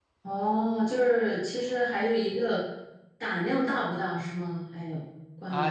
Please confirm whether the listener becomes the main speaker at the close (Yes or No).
Yes